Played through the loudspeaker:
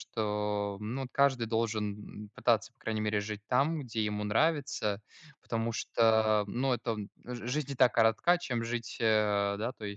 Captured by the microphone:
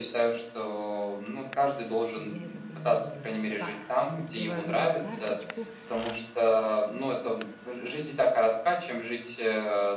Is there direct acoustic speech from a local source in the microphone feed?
Yes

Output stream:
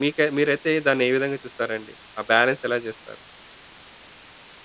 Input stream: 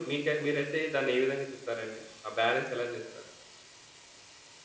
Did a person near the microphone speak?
No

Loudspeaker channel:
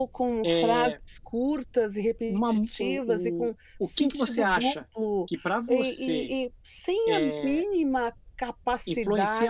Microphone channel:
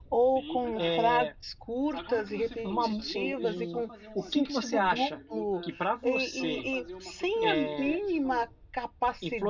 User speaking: Yes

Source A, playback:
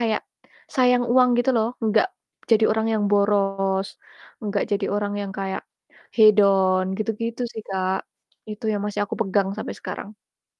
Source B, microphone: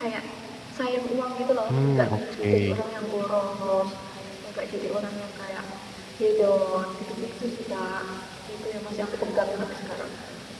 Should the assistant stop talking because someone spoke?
Yes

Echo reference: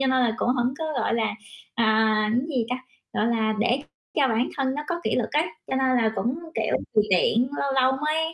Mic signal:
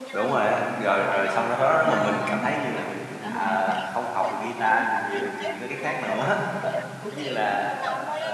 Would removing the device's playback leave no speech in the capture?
No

